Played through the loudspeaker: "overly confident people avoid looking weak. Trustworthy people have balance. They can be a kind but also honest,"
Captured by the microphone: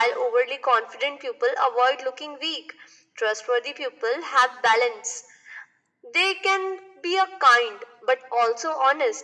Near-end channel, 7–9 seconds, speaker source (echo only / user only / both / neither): echo only